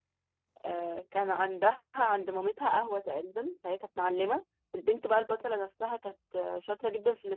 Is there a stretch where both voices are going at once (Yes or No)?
No